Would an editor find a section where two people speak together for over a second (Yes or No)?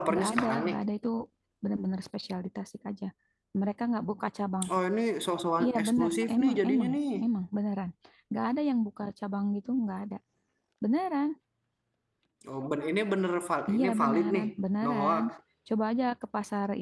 Yes